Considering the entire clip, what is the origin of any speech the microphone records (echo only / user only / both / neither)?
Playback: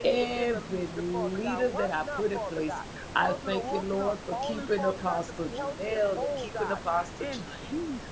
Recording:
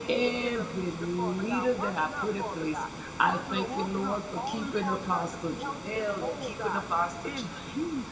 echo only